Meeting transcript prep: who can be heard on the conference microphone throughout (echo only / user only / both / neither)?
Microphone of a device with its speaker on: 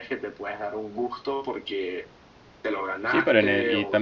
both